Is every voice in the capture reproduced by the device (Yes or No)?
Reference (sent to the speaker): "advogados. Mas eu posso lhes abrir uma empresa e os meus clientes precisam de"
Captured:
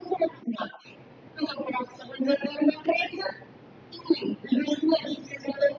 Yes